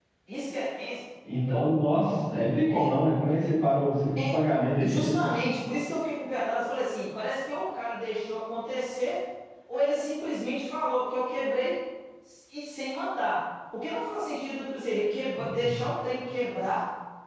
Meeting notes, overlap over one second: none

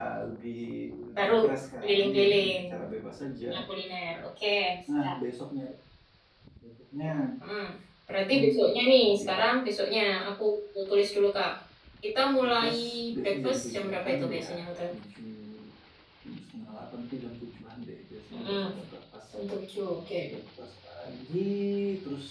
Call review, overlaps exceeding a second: present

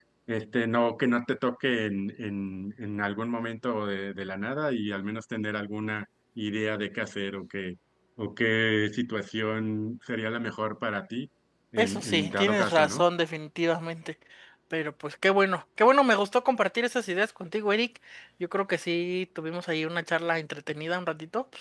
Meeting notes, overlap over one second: present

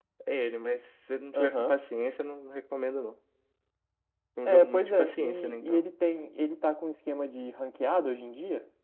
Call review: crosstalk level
present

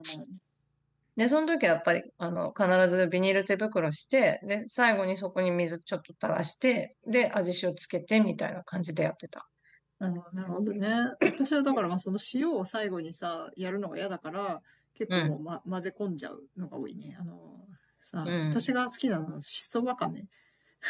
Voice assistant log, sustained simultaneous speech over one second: none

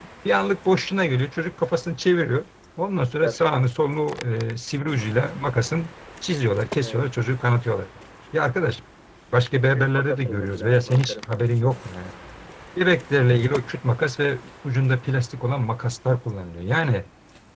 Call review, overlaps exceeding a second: present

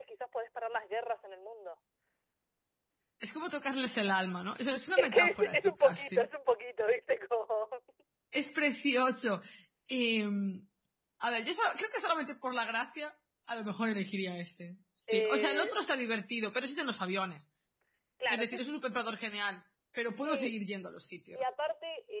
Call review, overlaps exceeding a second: present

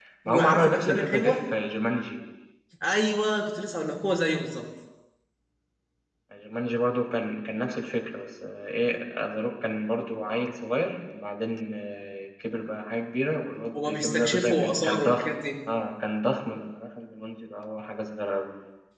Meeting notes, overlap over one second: present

